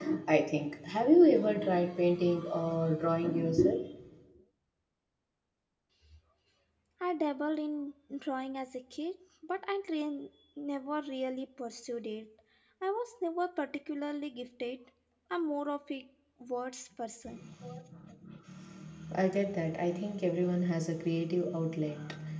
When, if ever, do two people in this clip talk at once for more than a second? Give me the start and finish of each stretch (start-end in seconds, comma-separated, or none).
none